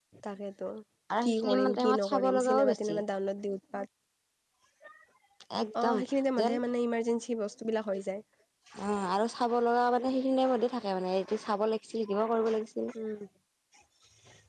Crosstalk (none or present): present